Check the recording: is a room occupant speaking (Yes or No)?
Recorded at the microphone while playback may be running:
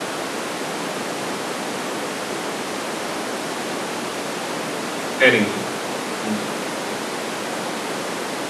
Yes